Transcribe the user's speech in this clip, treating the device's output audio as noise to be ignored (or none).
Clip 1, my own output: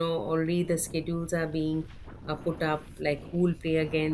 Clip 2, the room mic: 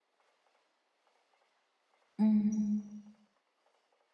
Mhm.